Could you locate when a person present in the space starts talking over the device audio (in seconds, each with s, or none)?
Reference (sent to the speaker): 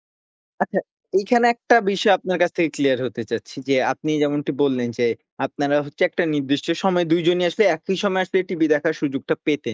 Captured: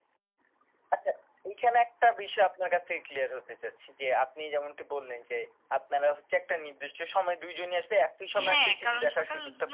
8.4 s